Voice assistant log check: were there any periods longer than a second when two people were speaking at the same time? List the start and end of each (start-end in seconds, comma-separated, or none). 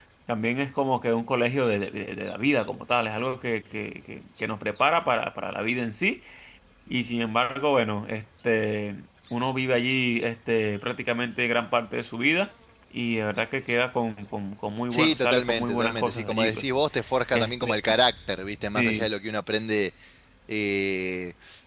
14.9-16.6